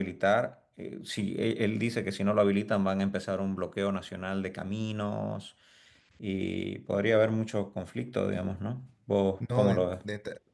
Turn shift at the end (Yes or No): Yes